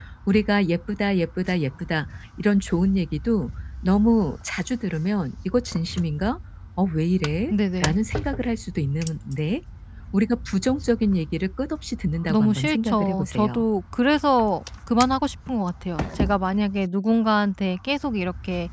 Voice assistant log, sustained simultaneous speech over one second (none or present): present